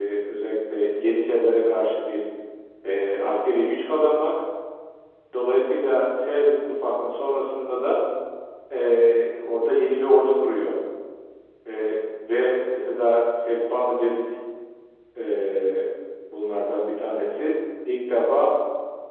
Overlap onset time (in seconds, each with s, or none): none